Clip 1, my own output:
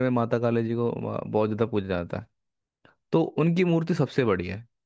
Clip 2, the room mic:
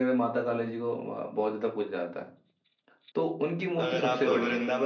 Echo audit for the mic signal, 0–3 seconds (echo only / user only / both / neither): echo only